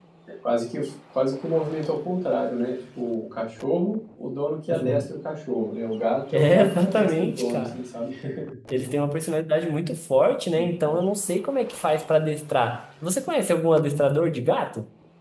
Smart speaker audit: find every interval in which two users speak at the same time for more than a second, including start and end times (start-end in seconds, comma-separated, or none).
6.3-7.8